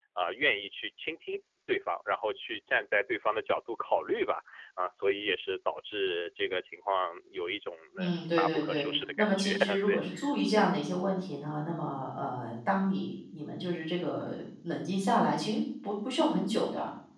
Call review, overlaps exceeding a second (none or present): present